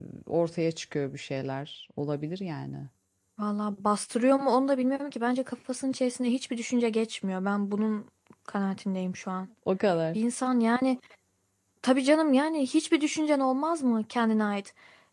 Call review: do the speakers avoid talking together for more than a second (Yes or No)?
Yes